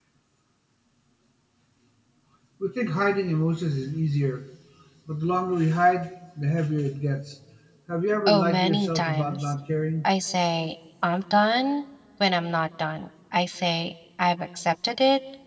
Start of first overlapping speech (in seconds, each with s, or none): 8.3 s